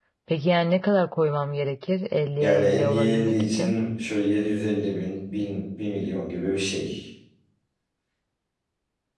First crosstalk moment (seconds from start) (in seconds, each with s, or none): 2.4 s